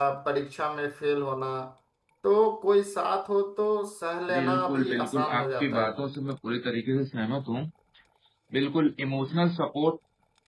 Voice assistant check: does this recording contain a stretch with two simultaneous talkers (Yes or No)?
Yes